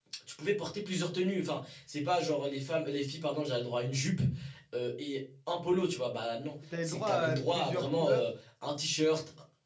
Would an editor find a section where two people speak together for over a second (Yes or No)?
Yes